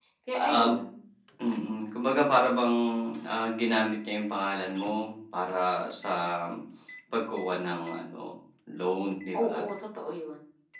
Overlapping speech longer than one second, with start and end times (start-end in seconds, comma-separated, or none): none